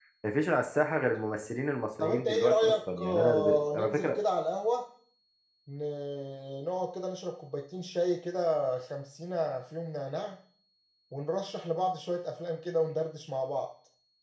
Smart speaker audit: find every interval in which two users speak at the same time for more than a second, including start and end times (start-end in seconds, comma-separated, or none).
2.0-4.2